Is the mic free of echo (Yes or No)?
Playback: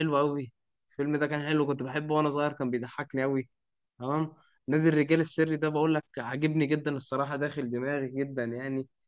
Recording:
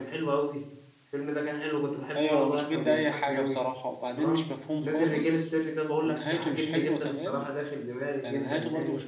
No